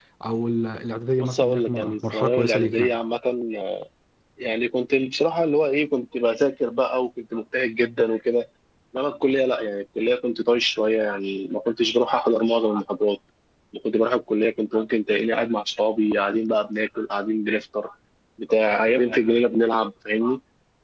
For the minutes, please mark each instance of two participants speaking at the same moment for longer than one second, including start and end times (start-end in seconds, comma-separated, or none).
1.2-2.9